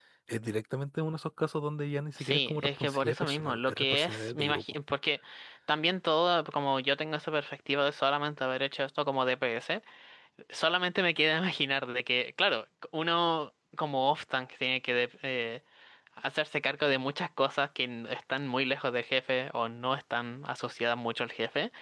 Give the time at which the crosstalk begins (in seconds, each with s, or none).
2.2 s